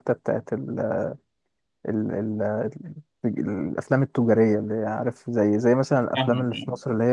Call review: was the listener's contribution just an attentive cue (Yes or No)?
Yes